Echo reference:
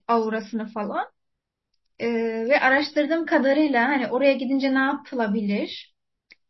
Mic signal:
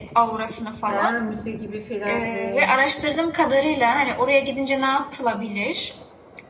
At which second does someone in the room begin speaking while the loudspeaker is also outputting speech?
0.8 s

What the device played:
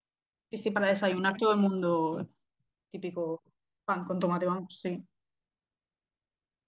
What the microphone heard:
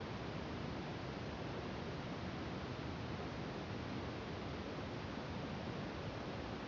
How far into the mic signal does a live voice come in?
none

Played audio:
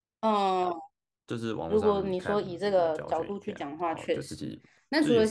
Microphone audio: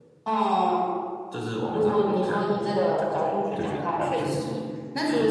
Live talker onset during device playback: 3.5 s

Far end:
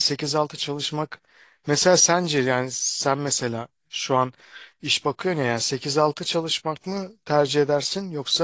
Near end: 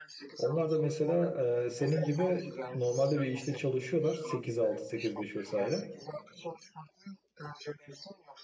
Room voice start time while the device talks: 0.4 s

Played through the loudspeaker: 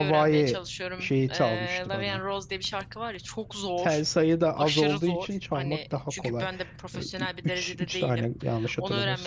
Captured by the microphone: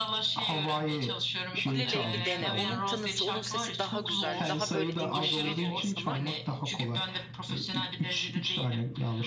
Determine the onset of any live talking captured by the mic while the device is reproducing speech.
1.6 s

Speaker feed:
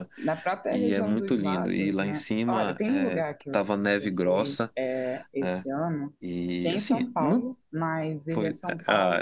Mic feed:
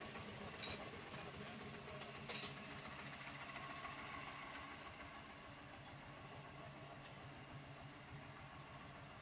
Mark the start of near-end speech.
none

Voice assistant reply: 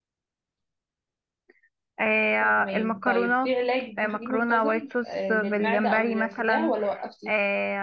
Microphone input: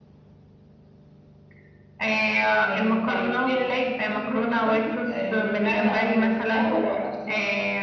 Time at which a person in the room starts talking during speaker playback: none

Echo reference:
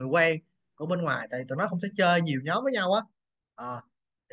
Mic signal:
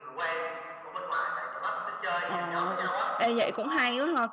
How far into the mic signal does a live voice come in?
2.2 s

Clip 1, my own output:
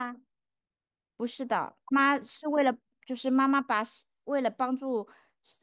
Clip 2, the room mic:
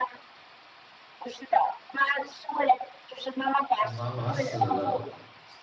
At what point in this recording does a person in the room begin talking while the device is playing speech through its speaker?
3.8 s

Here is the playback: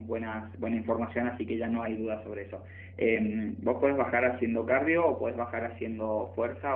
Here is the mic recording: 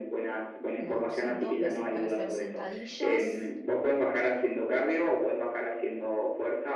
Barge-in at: 0.8 s

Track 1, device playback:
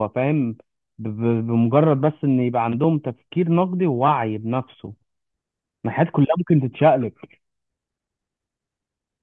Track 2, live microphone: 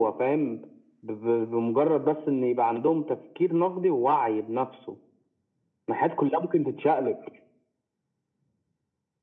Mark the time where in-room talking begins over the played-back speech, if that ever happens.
none

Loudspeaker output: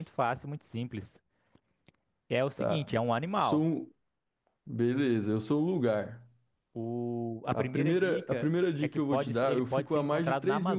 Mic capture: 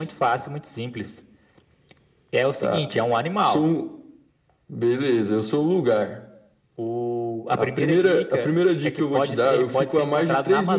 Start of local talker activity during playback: none

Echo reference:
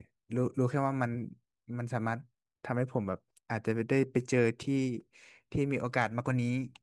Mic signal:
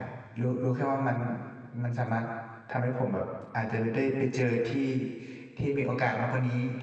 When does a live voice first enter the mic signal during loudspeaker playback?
none

